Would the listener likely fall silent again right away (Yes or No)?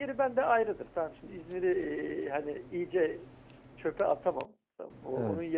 Yes